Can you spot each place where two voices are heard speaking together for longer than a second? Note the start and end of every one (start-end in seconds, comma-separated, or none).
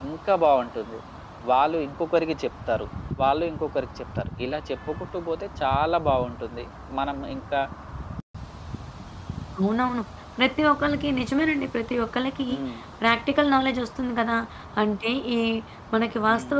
none